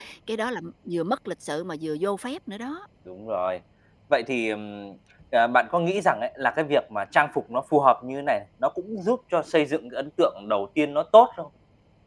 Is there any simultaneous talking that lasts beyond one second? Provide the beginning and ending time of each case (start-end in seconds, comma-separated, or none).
none